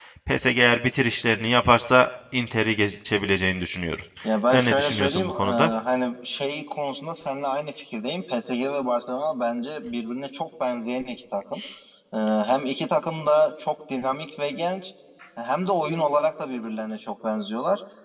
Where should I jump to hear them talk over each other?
4.5 s

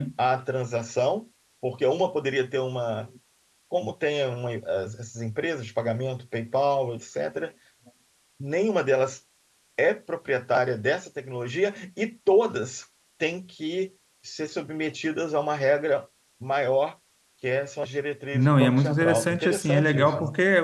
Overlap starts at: 18.3 s

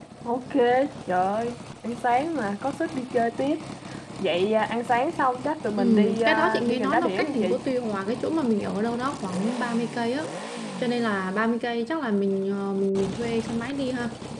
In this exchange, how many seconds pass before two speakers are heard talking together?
5.7 s

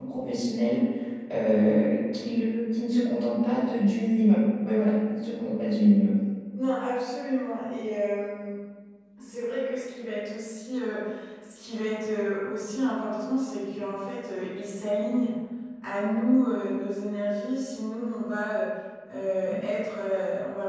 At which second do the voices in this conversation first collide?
none

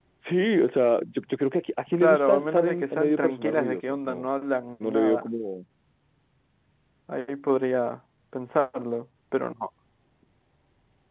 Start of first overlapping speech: 2.0 s

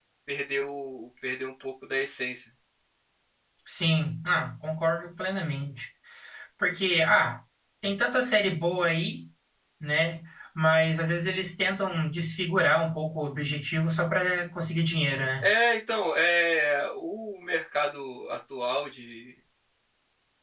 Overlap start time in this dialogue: none

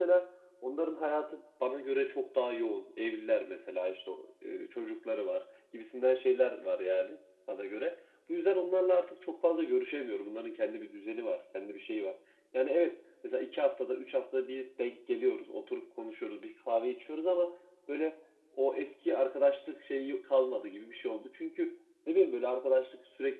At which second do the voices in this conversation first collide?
none

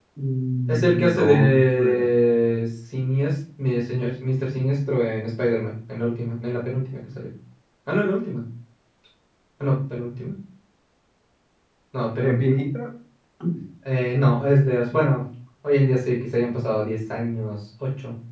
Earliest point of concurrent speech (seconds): 0.7 s

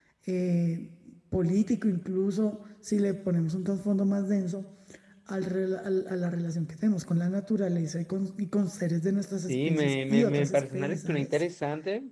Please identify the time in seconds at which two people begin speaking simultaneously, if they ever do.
9.5 s

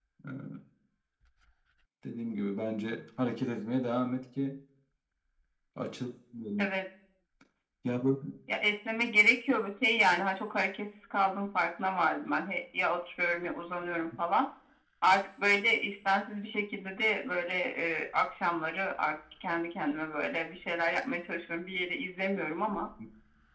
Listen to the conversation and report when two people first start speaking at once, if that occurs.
none

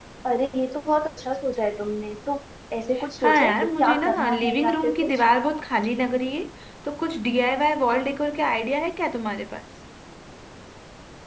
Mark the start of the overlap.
3.2 s

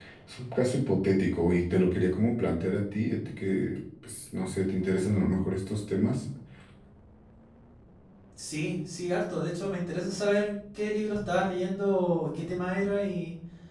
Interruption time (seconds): none

